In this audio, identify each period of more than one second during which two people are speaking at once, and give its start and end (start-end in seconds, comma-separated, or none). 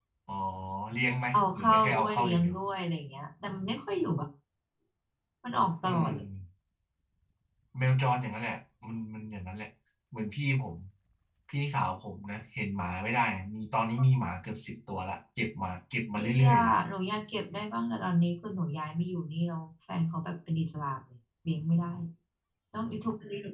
1.3-2.5